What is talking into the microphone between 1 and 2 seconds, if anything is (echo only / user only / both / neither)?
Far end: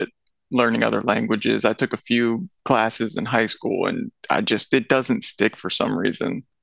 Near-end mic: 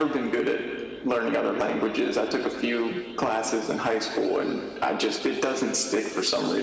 echo only